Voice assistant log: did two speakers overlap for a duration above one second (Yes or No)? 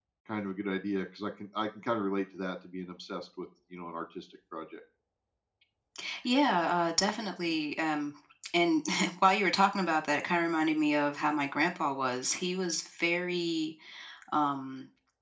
No